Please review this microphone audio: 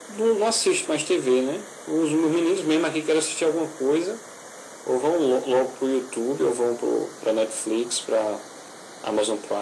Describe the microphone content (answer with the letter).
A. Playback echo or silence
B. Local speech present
A